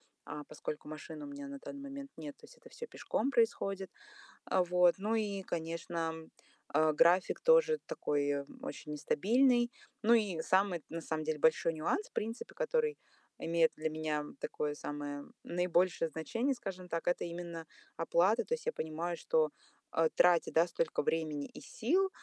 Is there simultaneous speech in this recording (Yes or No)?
No